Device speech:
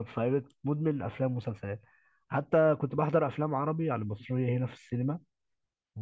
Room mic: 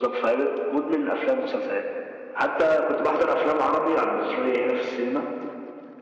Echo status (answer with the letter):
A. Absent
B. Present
B